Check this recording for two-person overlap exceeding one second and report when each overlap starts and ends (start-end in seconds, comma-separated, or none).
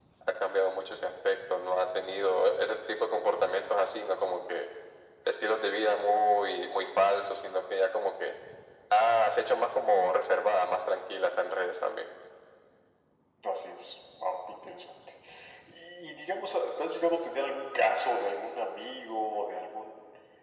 none